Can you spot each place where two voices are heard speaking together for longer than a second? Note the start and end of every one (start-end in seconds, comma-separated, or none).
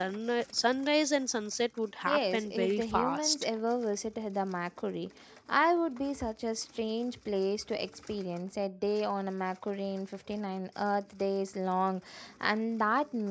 2.1-3.4